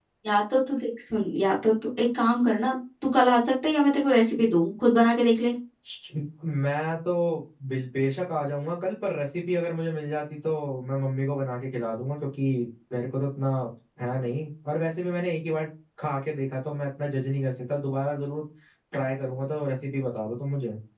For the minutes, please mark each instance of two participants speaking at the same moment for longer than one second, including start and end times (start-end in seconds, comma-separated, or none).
none